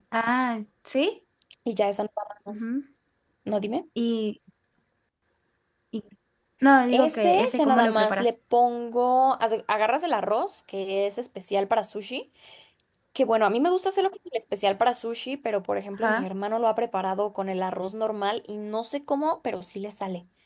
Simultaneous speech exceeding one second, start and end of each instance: 6.9-8.2

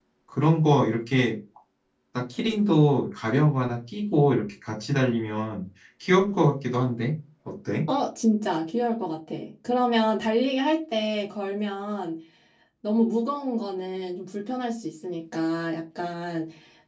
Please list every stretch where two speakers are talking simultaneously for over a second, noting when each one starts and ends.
none

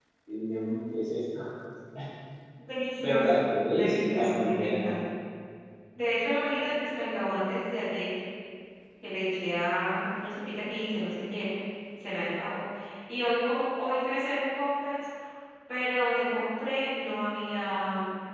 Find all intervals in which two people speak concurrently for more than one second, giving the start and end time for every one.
3.0-4.8

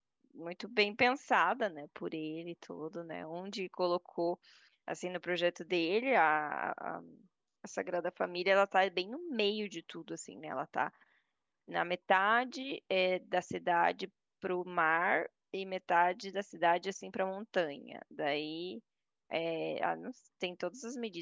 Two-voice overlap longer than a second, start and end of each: none

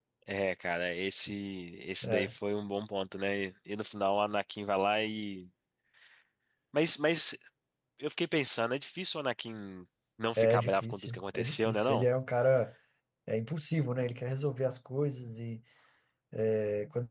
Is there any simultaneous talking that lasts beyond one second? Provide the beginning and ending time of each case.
10.4-12.0

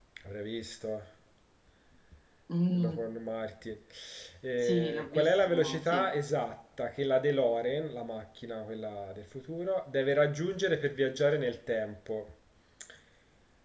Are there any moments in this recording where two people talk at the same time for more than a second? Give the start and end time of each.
4.6-6.1

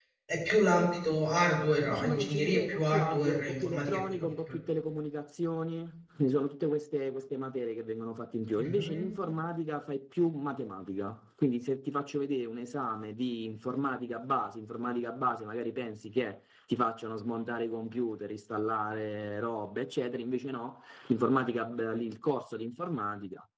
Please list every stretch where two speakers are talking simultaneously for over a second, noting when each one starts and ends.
1.8-4.6

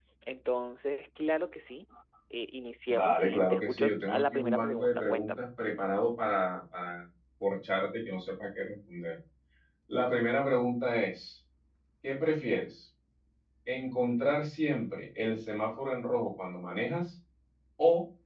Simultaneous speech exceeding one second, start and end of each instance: 2.9-5.5

